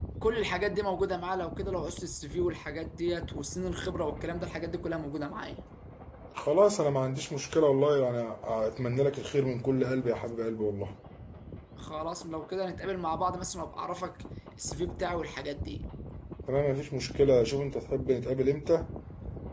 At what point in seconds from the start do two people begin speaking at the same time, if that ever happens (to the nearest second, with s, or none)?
none